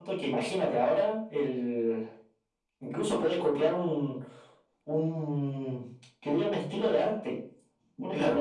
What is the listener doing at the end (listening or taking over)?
taking over